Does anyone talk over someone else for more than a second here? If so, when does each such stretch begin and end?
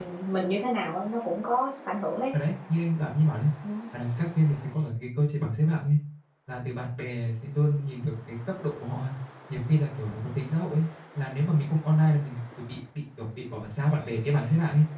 none

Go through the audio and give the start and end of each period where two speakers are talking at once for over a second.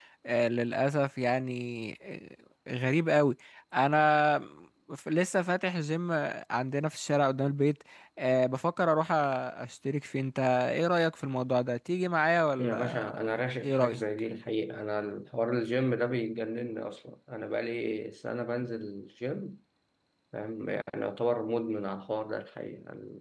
12.6-14.0

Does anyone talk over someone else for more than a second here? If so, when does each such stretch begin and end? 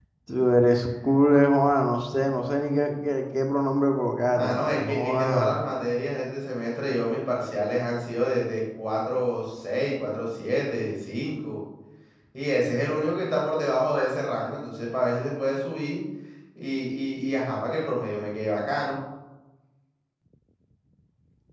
4.3-5.5

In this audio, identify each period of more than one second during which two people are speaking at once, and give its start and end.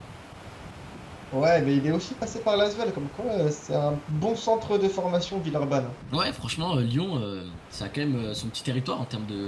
none

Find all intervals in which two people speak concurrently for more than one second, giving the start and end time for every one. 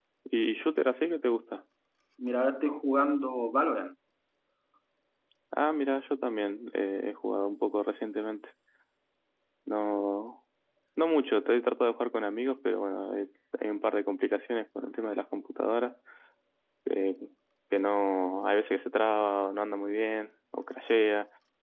none

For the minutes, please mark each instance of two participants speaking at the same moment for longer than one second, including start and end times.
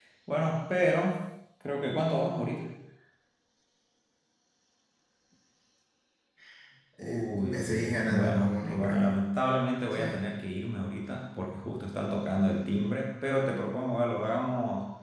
7.0-9.1

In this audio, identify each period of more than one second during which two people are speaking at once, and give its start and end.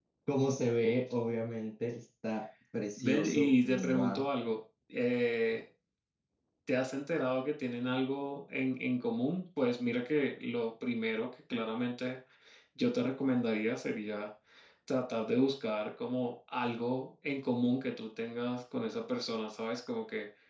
3.0-4.3

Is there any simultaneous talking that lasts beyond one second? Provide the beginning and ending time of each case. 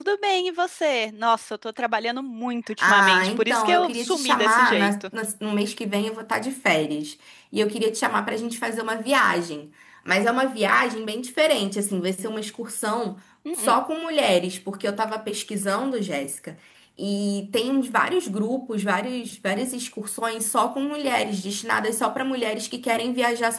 2.8-5.0

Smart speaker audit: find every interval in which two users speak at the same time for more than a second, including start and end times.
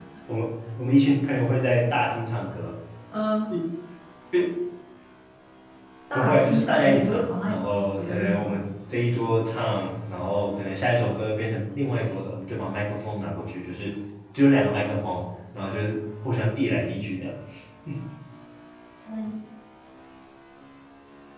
6.1-8.6

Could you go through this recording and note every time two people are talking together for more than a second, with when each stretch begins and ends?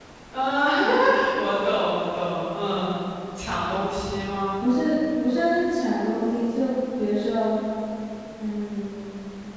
none

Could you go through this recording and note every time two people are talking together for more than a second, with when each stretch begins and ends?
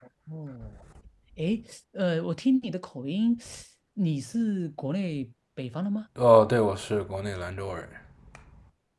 none

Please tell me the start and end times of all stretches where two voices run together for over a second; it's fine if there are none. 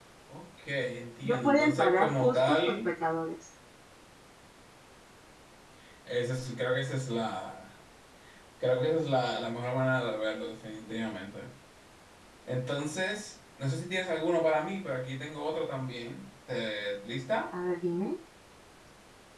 1.2-2.9

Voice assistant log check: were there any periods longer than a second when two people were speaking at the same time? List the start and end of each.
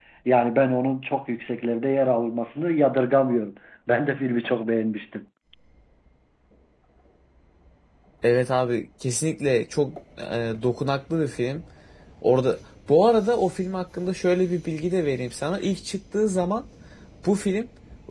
none

